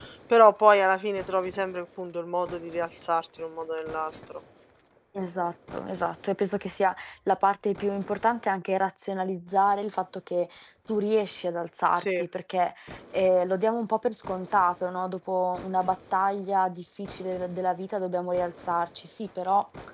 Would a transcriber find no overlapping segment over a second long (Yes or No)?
Yes